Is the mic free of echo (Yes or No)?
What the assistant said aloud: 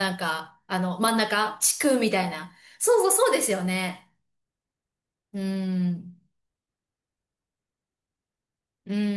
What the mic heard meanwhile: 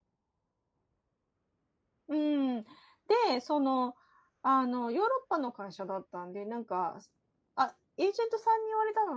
Yes